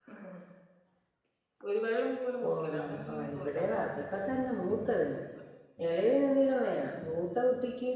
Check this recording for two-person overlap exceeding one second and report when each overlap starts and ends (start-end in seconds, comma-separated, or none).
2.4-3.8